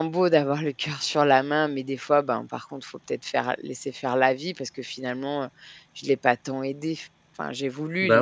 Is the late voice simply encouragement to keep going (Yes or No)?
Yes